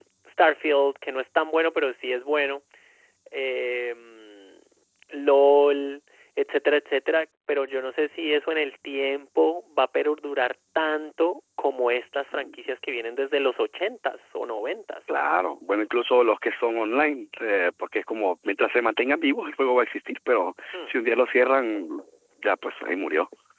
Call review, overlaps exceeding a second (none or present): none